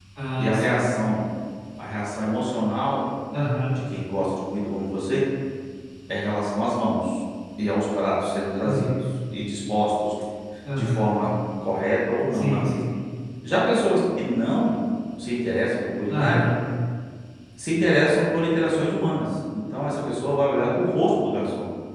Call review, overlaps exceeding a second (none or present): none